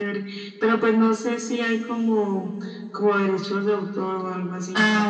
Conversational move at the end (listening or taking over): taking over